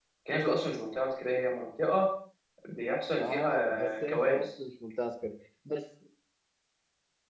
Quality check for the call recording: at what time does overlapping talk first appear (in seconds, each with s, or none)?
3.2 s